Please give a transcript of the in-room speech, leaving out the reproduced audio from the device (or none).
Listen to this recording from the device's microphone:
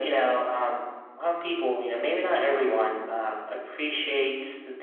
none